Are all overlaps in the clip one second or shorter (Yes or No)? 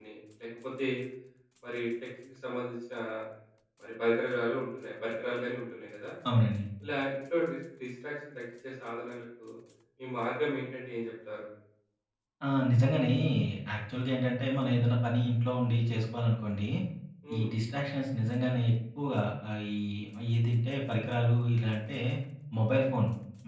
Yes